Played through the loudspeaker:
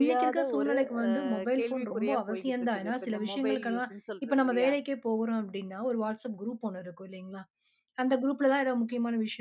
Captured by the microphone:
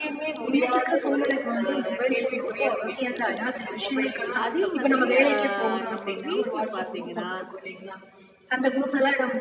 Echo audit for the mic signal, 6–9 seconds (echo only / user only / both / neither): both